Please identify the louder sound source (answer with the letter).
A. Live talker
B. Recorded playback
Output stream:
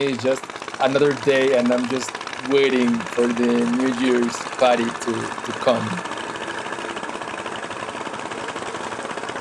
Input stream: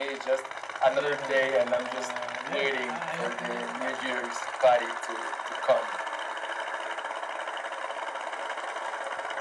B